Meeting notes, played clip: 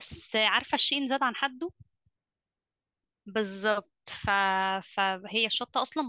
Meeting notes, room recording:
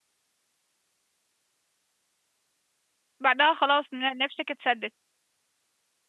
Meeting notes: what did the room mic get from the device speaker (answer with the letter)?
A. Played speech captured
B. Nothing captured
B